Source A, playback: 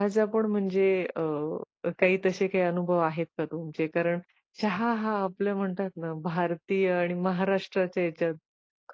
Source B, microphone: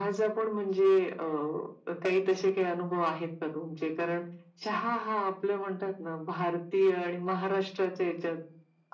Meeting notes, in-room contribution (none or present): none